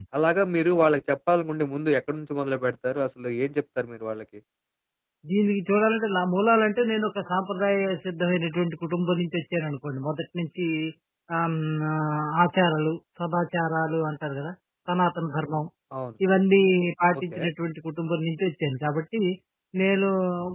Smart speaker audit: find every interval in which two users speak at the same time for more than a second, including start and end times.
none

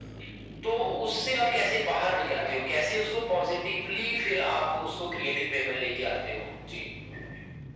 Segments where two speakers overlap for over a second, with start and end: none

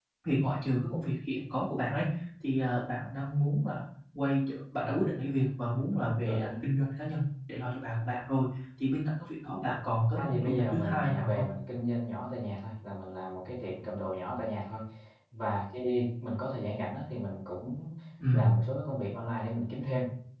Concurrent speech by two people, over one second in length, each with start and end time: 10.2-11.4

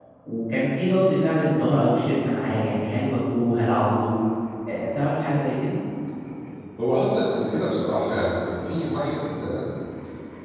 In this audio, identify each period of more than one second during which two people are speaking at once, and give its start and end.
none

